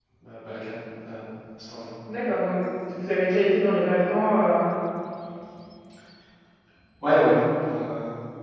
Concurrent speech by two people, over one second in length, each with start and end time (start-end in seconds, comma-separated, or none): none